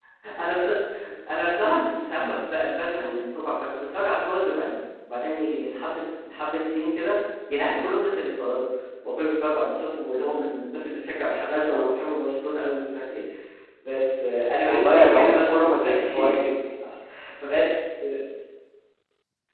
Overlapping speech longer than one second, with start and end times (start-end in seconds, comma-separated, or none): 14.7-16.3